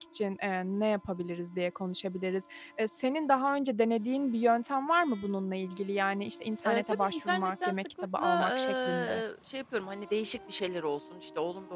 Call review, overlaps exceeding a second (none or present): present